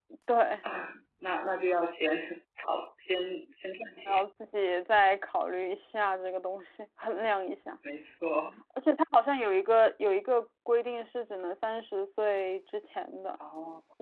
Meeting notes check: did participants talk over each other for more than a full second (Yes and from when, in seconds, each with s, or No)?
No